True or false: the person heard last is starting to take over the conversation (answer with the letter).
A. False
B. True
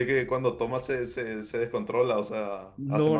B